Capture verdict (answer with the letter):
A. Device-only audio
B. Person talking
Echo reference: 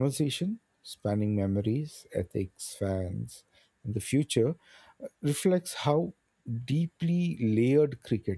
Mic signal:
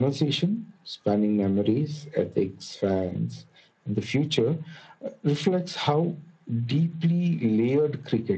A